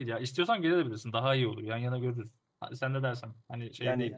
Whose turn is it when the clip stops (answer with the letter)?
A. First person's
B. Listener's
B